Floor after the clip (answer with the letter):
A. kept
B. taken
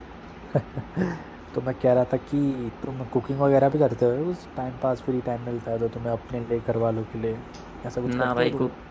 B